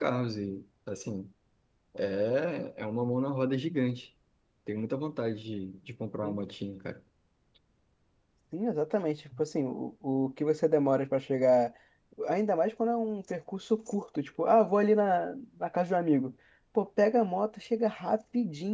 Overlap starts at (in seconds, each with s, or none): none